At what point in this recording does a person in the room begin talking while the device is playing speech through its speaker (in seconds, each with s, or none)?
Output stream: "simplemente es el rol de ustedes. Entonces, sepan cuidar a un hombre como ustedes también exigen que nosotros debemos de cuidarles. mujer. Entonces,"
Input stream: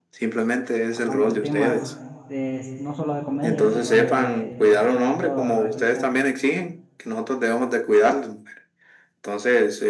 0.9 s